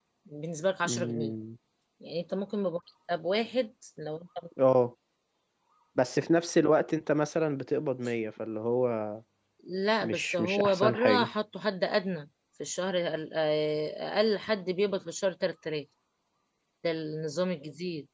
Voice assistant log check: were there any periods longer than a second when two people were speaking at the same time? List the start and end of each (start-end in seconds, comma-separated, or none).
10.0-11.3